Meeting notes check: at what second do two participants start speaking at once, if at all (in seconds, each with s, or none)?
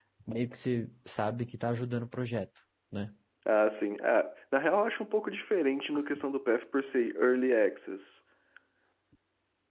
none